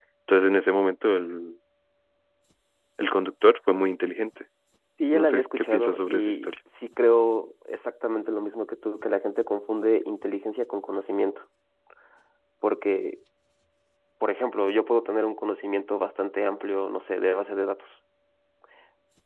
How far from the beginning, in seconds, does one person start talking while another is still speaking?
5.1 s

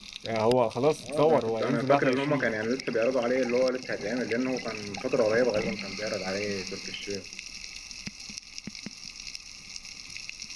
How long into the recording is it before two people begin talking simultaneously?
1.0 s

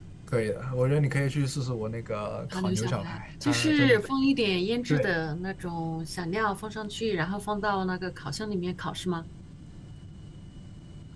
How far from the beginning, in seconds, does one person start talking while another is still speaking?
2.5 s

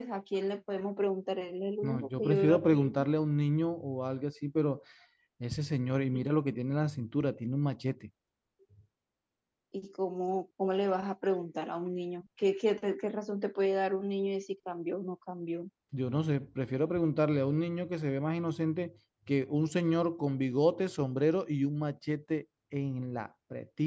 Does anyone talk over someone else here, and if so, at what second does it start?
1.8 s

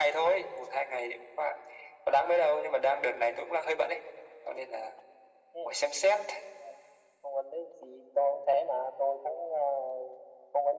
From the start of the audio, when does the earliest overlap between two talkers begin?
none

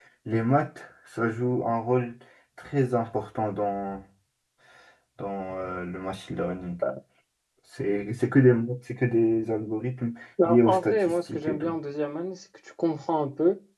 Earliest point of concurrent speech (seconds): 10.4 s

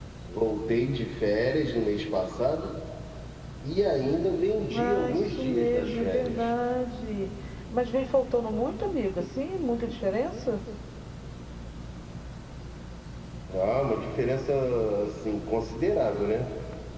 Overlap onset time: 4.7 s

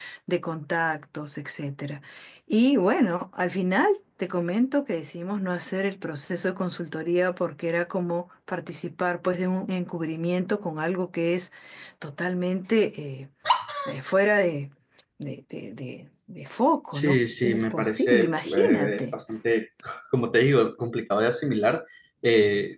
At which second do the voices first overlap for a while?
16.9 s

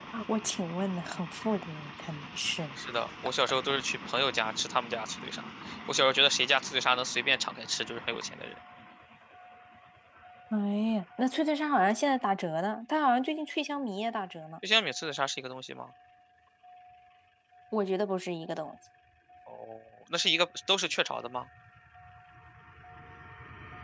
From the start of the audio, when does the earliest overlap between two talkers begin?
none

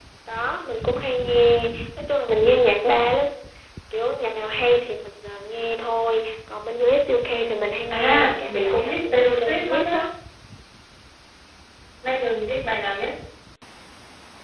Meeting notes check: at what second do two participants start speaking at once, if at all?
7.9 s

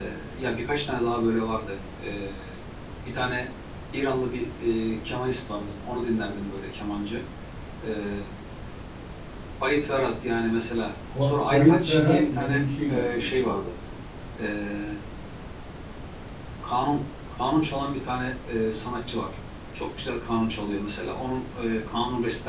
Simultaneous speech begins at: 11.1 s

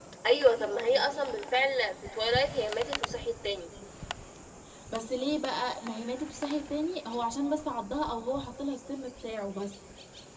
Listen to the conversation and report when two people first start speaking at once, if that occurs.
none

